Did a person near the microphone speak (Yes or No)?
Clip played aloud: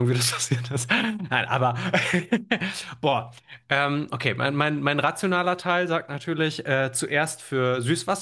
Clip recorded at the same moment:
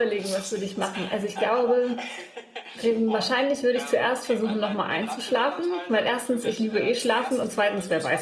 Yes